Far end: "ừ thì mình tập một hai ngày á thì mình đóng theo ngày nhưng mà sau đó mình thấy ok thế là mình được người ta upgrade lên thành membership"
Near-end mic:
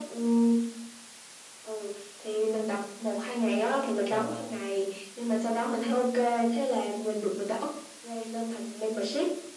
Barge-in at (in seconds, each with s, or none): 4.1 s